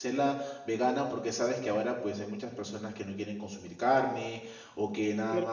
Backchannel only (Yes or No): No